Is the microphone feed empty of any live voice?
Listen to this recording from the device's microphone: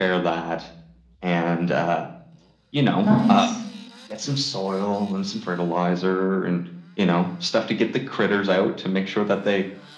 No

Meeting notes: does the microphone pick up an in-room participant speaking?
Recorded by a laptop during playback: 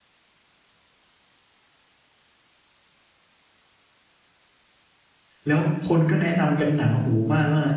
Yes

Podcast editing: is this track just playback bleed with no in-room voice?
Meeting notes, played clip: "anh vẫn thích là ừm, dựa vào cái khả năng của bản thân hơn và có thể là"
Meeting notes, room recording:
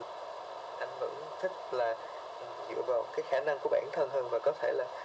Yes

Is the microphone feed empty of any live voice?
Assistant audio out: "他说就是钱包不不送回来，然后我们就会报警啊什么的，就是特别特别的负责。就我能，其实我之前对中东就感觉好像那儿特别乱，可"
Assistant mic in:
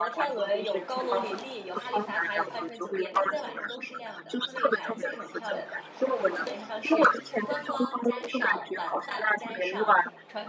No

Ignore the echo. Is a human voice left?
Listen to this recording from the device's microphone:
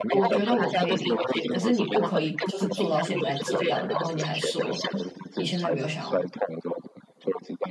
Yes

